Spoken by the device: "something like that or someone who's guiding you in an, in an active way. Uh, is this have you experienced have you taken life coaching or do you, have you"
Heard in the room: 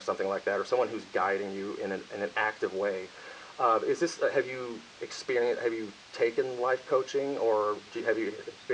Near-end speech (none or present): none